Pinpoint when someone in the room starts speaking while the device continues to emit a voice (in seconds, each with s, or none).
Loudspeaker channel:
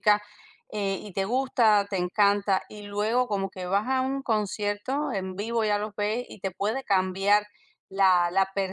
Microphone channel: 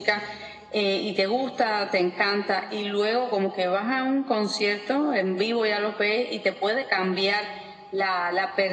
none